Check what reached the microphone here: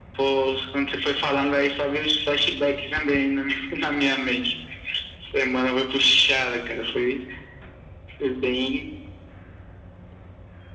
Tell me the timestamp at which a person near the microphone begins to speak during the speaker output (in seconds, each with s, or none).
none